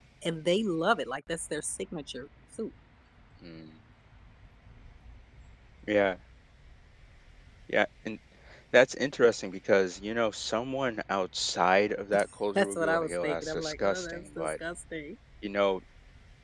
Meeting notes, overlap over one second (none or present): present